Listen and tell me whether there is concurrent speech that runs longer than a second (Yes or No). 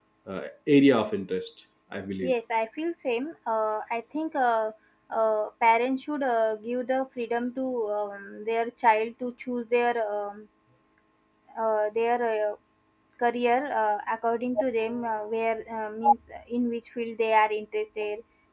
No